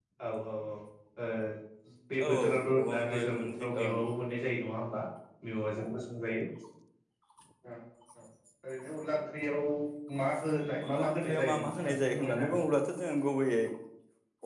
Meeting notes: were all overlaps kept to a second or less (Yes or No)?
No